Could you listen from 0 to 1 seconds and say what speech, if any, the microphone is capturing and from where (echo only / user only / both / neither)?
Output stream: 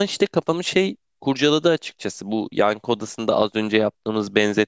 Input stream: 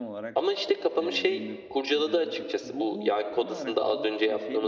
both